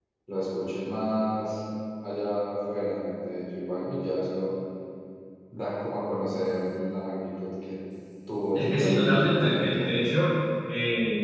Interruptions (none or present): present